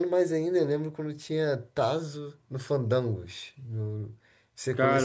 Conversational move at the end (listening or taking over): taking over